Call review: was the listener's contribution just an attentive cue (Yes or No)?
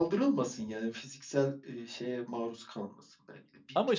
Yes